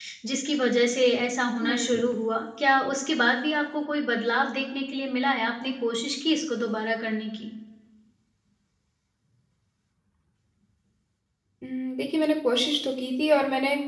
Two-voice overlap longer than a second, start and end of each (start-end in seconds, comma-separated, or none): none